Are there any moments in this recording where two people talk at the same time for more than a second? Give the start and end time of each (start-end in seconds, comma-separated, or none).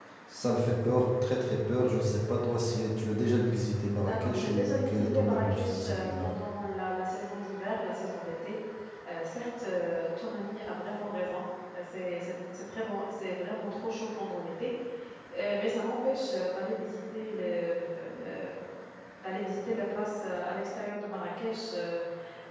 4.1-6.3